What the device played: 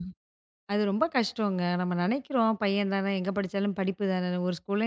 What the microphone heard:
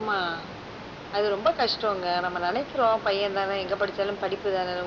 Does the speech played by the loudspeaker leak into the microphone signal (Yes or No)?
Yes